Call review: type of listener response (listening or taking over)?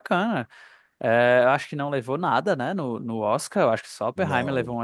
listening